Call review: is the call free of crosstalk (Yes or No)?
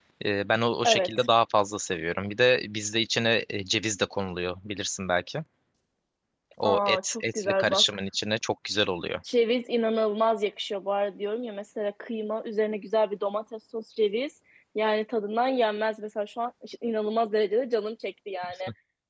No